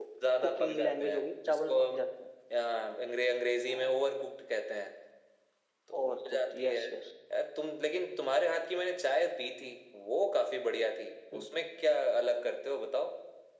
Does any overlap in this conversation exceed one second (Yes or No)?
Yes